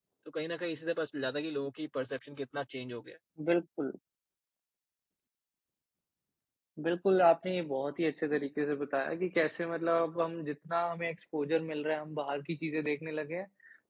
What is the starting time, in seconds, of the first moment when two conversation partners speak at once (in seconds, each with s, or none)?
none